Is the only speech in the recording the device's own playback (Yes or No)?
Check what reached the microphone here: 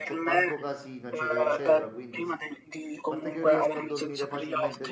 No